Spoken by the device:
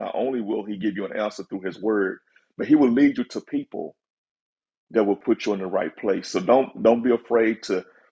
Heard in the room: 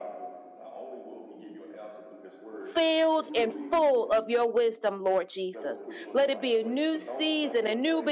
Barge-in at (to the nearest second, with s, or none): 3 s